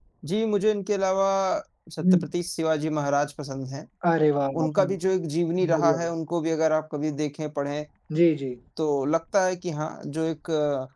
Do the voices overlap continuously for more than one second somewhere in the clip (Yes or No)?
No